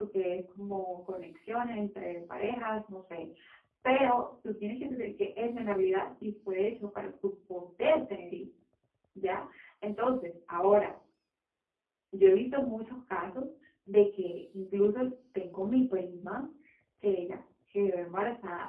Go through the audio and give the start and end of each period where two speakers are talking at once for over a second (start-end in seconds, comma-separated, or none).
none